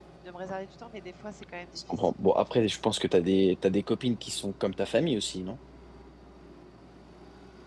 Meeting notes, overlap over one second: none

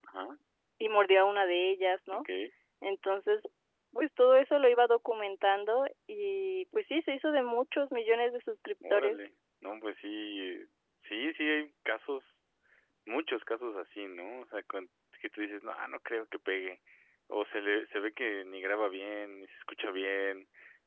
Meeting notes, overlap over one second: none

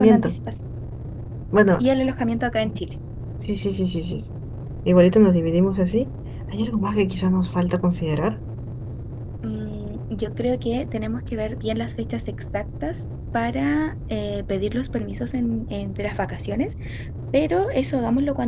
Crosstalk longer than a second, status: none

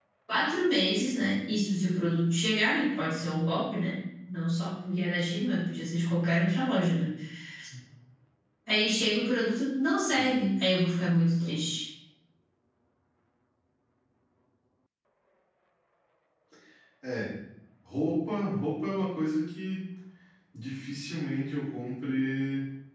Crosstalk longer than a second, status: none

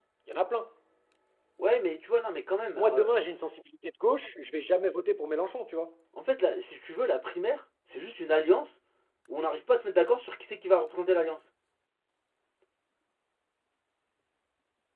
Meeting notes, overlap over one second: none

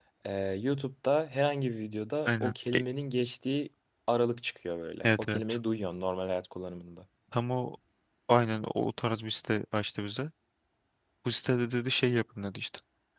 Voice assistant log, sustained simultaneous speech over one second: none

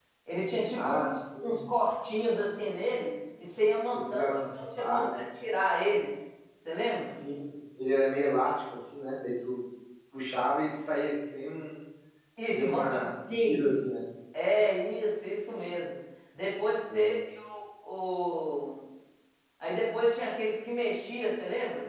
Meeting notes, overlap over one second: present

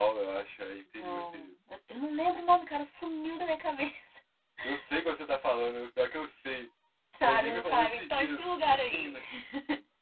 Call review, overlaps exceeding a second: present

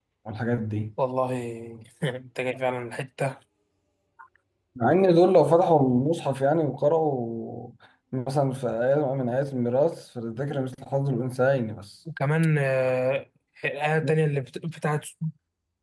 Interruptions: none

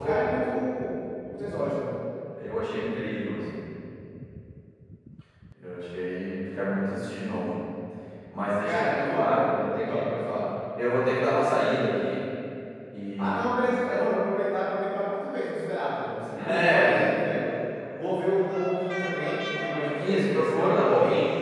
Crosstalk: present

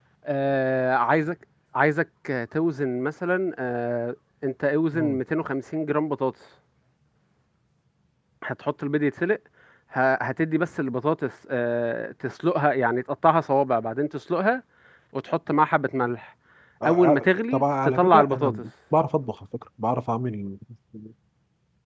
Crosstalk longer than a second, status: present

